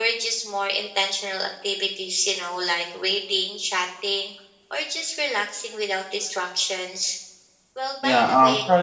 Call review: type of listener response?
taking over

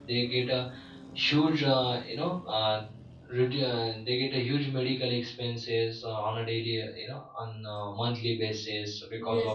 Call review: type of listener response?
taking over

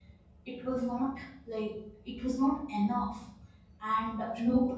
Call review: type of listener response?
listening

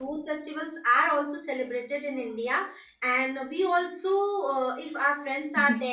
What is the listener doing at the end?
listening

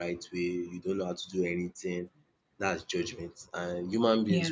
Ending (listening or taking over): listening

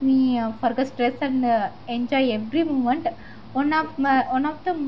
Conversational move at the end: listening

